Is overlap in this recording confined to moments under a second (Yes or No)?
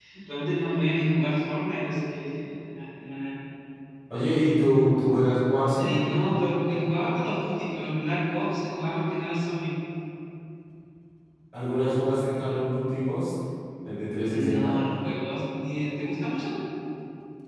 Yes